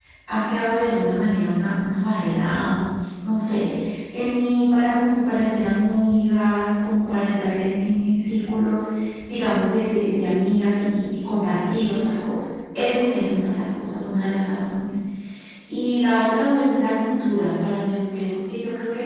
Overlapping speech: No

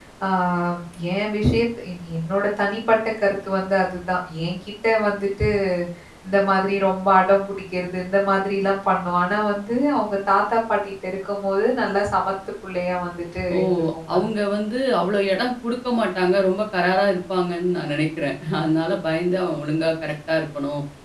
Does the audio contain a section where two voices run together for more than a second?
No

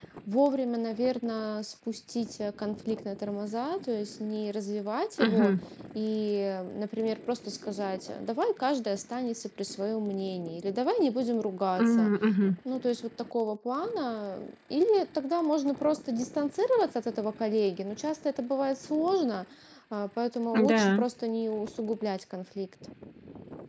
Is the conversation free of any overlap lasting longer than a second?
Yes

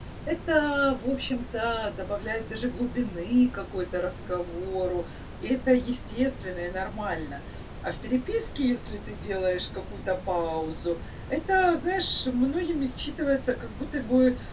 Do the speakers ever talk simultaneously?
No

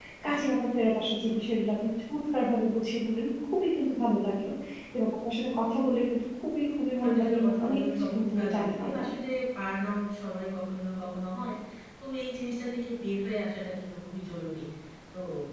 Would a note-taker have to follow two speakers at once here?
Yes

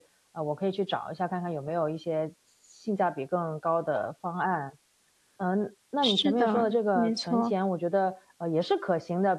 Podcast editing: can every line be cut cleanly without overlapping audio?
No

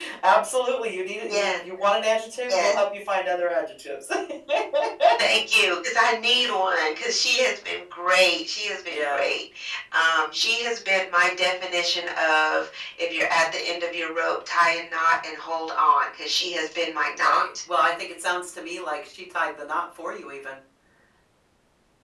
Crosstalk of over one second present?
No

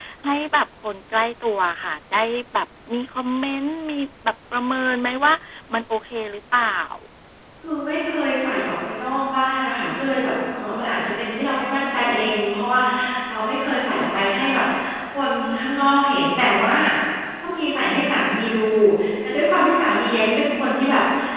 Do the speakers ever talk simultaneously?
No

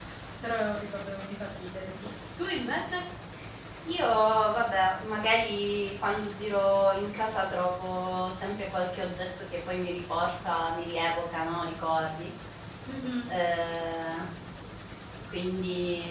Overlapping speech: No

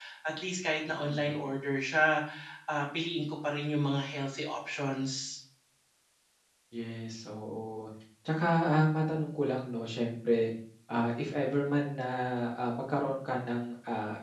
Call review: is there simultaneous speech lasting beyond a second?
No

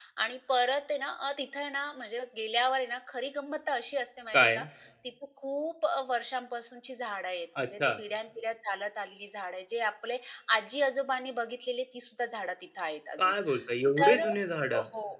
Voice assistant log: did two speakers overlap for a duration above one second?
No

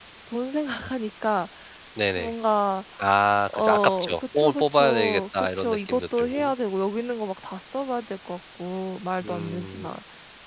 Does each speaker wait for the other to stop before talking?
No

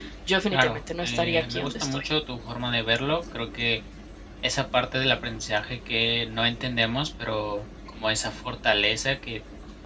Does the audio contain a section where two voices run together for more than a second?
Yes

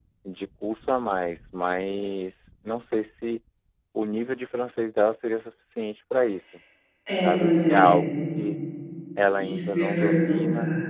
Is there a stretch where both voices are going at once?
Yes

